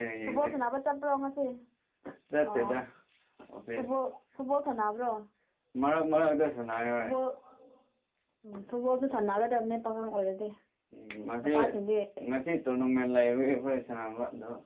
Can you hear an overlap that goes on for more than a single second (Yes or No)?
No